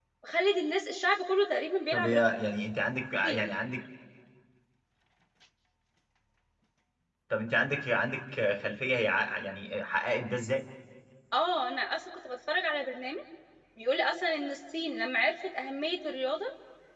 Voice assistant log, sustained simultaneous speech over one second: none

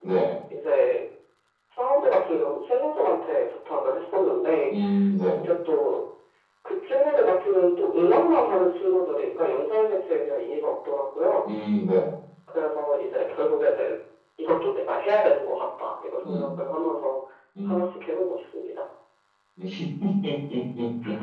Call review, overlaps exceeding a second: none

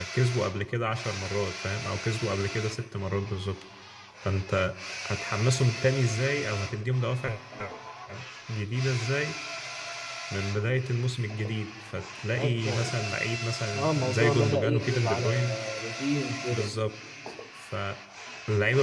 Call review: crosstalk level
present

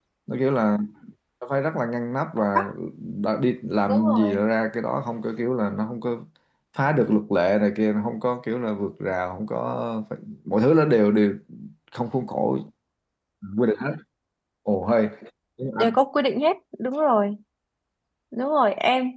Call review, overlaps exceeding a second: none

